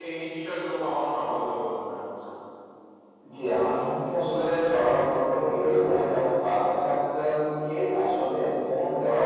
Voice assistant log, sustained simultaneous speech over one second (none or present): none